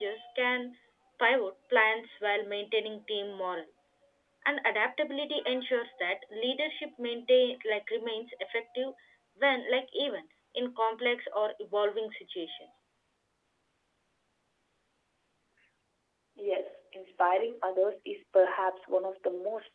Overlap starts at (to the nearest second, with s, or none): none